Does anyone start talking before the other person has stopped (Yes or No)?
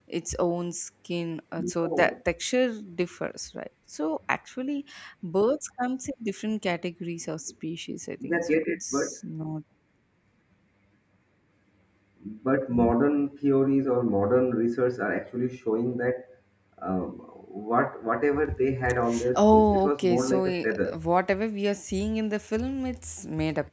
Yes